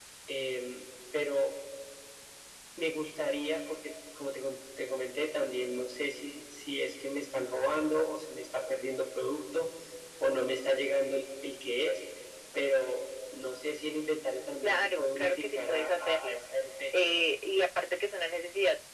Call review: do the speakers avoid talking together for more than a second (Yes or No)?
No